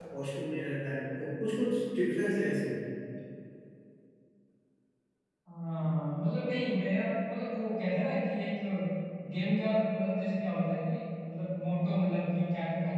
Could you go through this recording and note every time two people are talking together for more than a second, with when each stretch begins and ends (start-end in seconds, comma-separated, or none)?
none